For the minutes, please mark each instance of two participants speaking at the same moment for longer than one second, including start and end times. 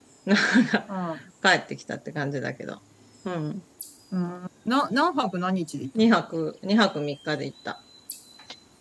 none

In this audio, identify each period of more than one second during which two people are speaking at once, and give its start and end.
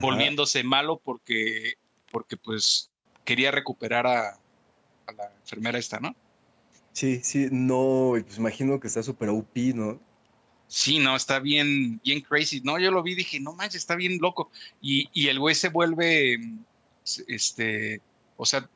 none

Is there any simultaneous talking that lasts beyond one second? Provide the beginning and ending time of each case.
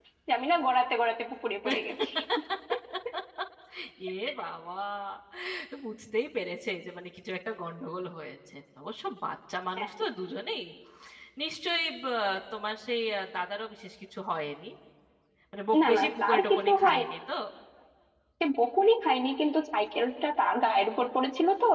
15.8-17.1

